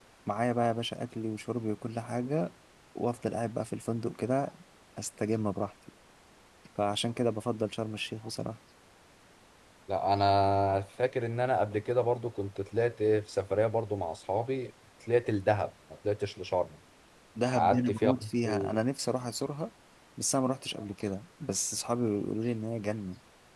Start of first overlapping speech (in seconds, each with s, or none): 17.5 s